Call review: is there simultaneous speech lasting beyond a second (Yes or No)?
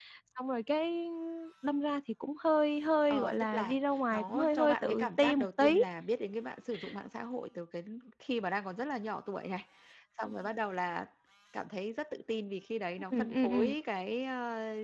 Yes